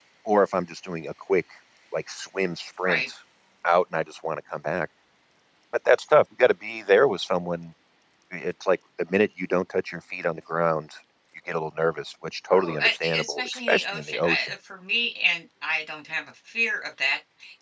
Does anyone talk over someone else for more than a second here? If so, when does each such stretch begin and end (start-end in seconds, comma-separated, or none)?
12.5-14.5